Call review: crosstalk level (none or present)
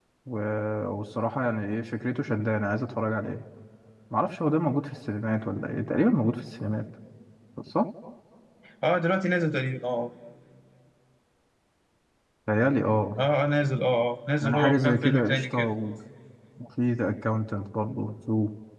present